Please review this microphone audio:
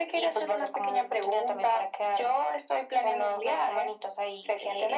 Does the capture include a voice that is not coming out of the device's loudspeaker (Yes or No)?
No